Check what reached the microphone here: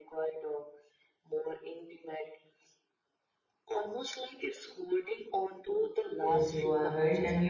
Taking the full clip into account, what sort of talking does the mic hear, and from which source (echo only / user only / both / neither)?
both